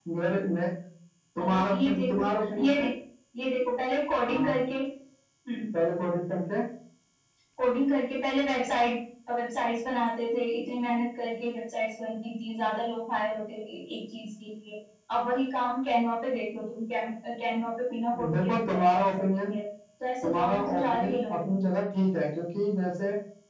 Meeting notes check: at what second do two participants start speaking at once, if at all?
1.4 s

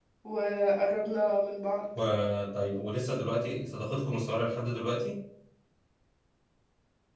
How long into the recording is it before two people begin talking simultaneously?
none

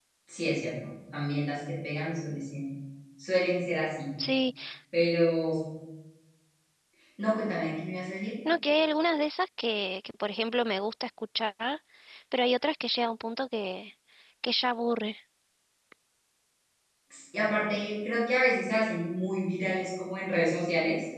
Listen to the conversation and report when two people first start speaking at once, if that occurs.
none

